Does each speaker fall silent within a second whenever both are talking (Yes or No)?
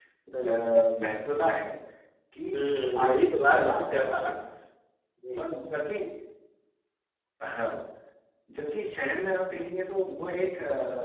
No